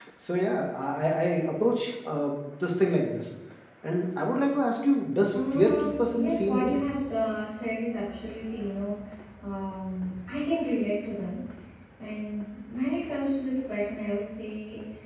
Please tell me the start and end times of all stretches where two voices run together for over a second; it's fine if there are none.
5.3-6.7

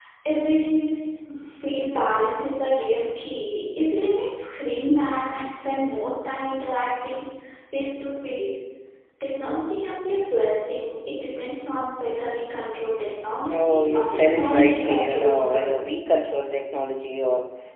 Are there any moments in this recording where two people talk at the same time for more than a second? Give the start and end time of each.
13.5-15.9

